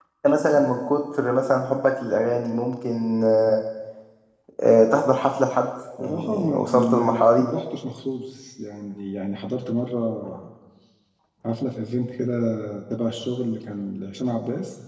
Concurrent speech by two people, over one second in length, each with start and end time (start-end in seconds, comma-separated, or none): 6.0-7.4